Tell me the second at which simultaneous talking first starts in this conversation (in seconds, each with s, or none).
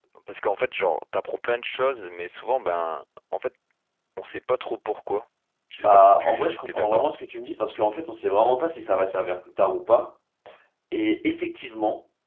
5.8 s